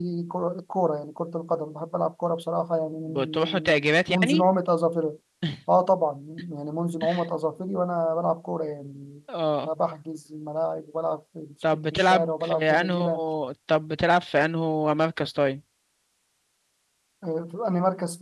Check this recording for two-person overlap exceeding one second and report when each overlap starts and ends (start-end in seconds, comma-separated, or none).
3.1-4.4, 11.7-13.0